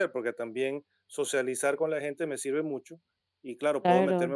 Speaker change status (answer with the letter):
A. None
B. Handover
A